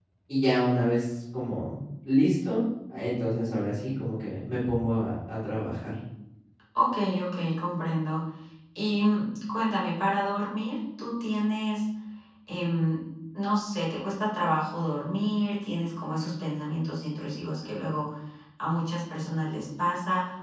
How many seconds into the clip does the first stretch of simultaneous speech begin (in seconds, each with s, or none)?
none